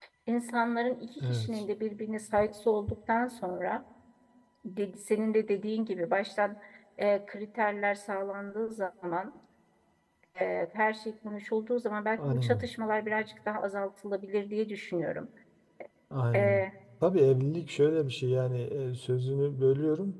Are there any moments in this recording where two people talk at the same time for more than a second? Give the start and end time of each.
none

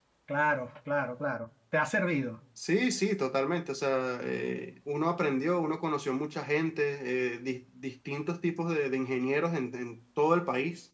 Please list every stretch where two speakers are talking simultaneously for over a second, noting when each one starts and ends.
none

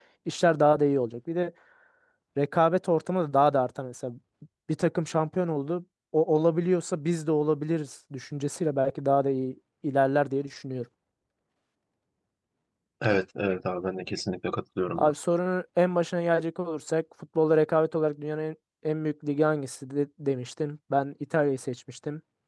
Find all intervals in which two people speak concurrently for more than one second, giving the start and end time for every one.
none

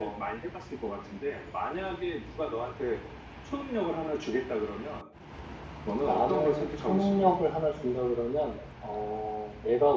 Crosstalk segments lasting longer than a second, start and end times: 6.0-7.3

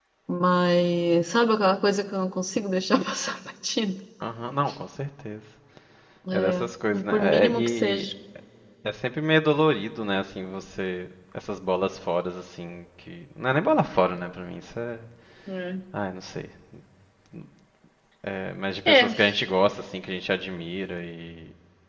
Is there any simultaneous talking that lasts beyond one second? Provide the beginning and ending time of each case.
6.3-8.0

